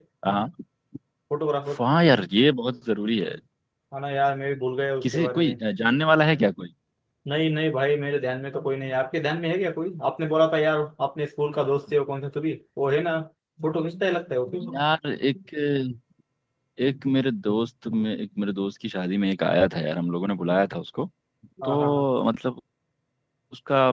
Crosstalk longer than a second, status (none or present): none